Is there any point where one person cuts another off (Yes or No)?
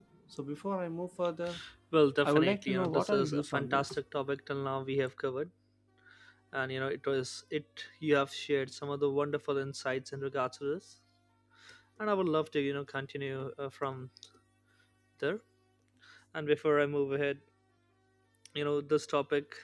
Yes